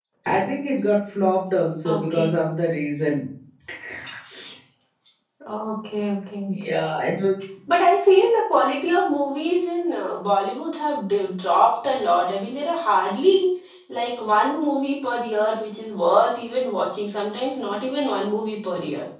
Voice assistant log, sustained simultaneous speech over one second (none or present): none